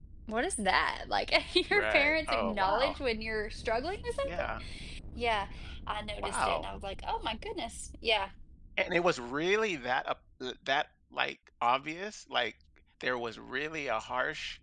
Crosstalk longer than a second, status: present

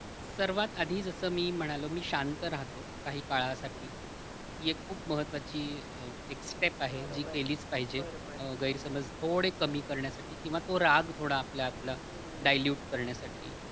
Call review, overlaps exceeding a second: none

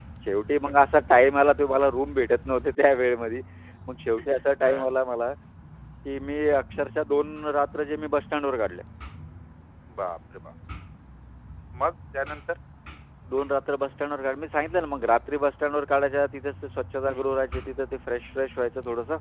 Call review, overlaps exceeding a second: none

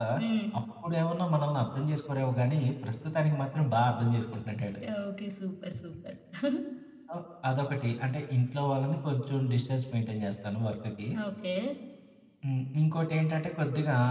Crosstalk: none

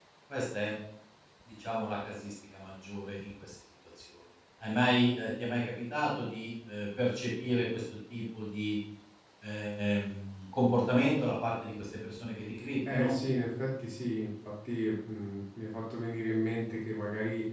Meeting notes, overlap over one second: none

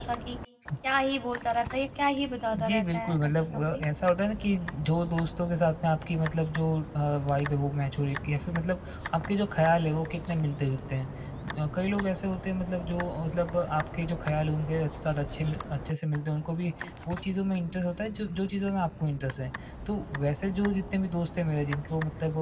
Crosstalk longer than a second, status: present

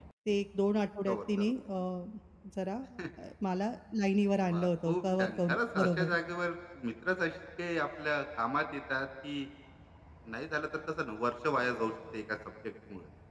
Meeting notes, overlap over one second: present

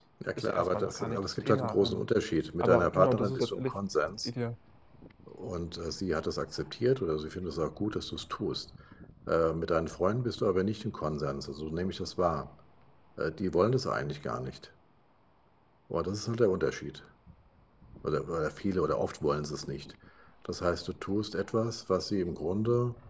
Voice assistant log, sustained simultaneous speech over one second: present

